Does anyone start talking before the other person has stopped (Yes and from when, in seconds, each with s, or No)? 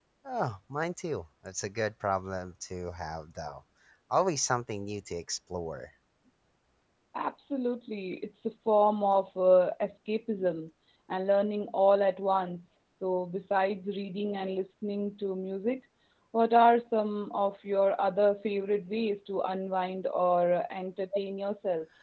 No